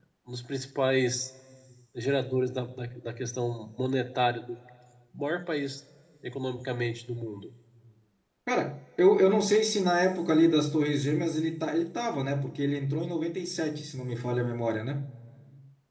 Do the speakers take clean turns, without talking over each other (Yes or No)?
Yes